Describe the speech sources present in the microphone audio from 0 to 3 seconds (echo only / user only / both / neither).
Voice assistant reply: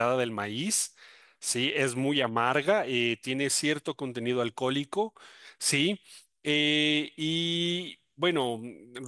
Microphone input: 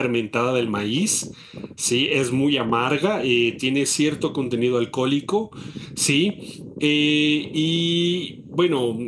echo only